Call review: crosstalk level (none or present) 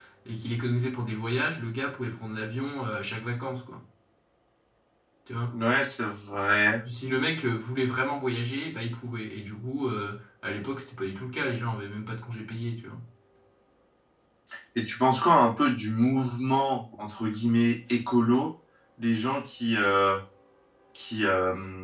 none